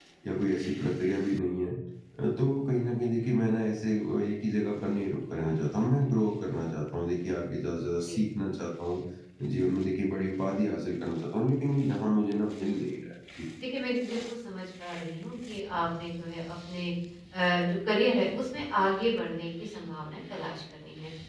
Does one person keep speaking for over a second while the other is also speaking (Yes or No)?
No